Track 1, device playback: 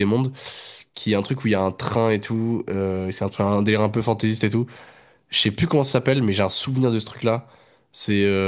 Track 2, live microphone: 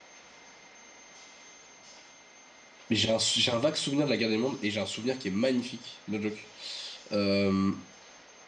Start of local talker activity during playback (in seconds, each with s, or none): 2.9 s